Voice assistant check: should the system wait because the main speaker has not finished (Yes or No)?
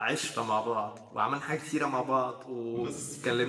No